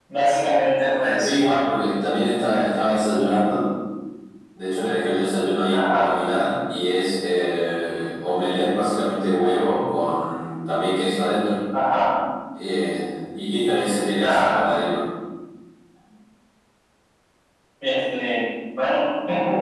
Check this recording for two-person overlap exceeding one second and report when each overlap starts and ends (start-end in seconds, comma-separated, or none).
none